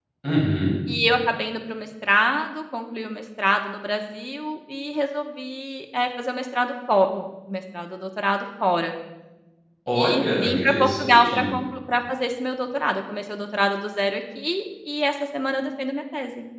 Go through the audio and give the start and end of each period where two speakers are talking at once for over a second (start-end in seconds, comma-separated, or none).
10.0-11.4